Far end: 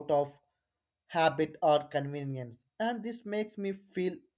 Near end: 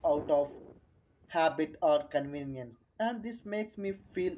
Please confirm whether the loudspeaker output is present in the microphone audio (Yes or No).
Yes